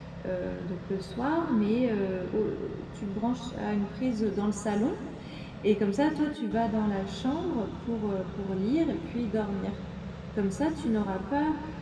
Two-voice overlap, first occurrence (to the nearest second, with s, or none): none